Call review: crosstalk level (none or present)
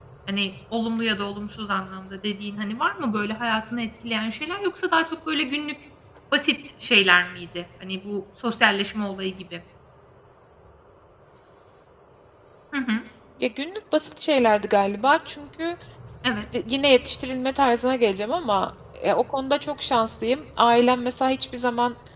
none